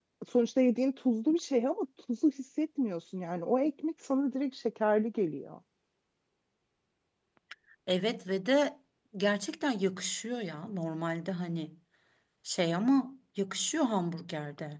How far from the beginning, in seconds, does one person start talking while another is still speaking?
none

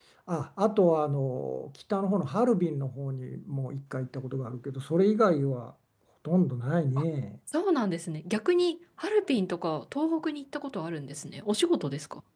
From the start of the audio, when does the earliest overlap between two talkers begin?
none

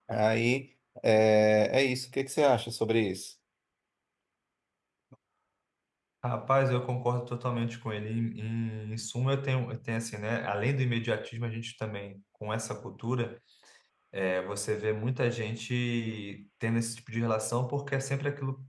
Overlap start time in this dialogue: none

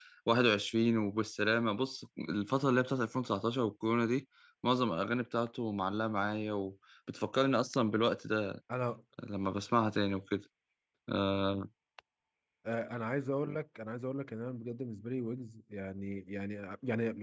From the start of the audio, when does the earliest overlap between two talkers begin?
none

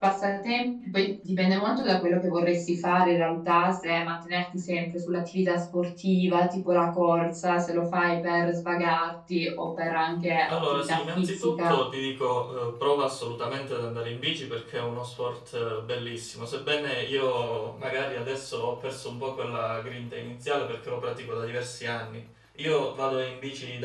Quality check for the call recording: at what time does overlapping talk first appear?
10.5 s

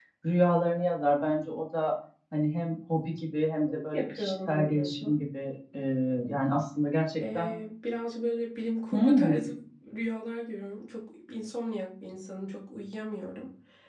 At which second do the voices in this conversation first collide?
3.9 s

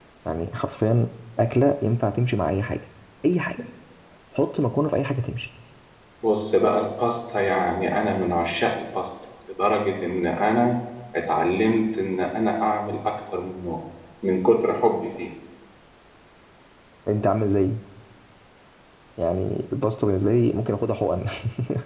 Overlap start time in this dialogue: none

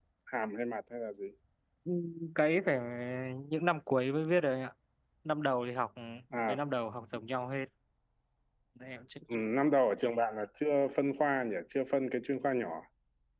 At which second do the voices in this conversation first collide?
none

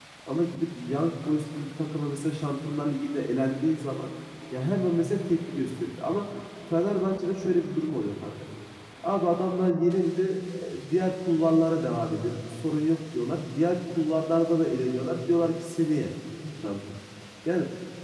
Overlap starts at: none

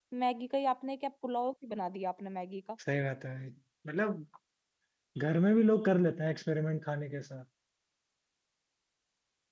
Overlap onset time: none

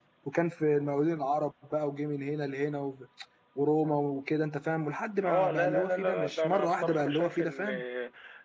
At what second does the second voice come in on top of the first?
5.2 s

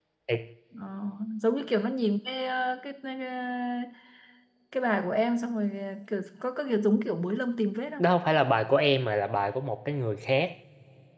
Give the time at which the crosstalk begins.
none

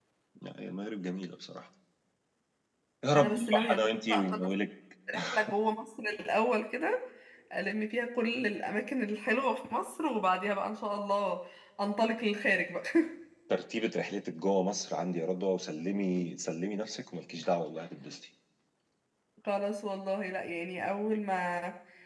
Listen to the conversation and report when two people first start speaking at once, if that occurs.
3.1 s

